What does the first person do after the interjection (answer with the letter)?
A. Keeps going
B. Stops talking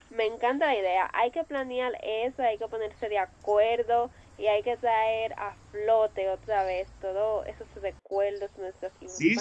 B